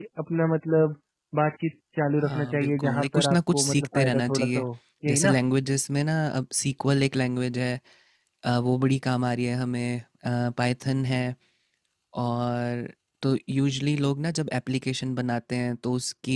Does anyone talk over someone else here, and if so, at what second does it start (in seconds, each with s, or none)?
2.2 s